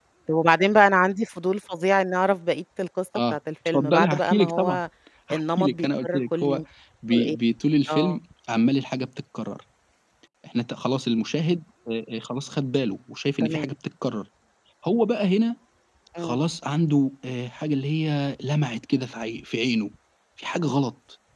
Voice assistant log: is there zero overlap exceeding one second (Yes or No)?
No